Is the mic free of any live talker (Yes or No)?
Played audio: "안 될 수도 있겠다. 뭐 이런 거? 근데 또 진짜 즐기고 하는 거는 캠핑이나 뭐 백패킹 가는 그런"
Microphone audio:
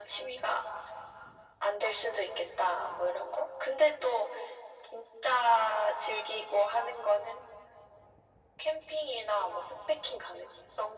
Yes